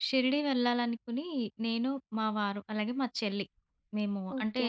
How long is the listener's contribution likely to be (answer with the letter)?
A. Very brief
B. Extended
A